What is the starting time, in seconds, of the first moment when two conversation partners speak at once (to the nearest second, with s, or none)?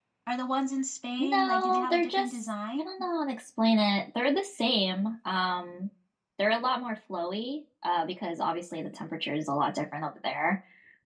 1 s